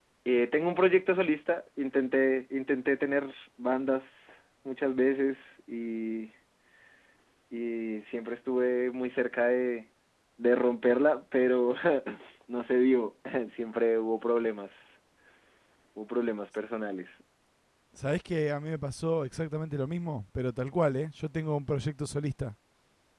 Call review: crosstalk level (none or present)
none